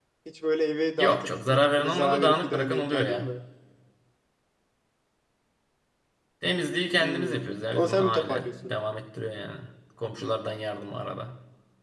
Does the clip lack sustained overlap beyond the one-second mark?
No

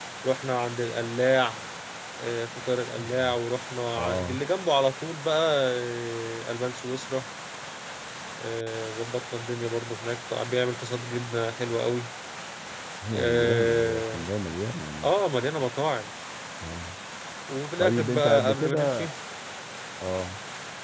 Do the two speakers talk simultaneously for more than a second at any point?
Yes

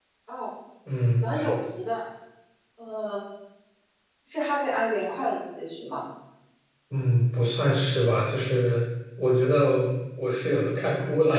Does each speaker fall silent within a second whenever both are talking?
Yes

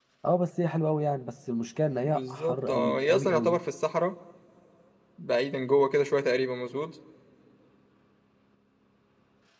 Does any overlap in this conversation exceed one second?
Yes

